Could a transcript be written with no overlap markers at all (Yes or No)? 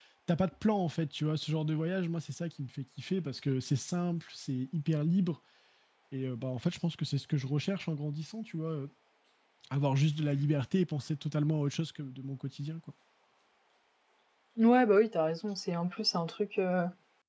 Yes